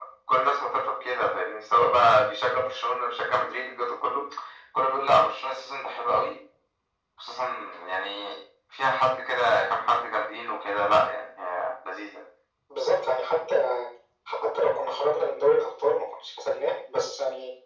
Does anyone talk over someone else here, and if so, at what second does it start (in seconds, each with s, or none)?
none